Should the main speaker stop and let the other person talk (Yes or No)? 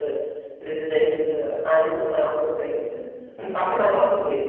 No